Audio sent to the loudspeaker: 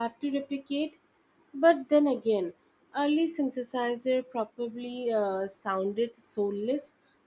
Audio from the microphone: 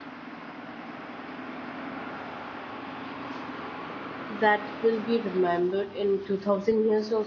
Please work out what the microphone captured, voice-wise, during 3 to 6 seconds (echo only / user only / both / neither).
user only